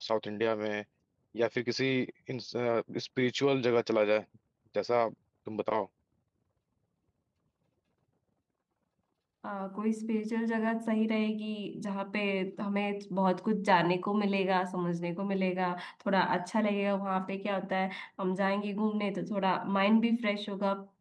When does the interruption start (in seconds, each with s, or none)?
none